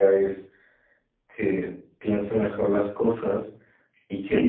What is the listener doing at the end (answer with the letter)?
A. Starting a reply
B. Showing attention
A